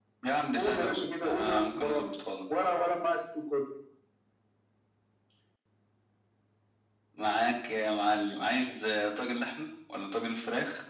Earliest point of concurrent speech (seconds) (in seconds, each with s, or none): 0.5 s